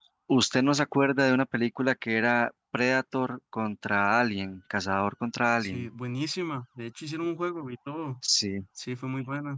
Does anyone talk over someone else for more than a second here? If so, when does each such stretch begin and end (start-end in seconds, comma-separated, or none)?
none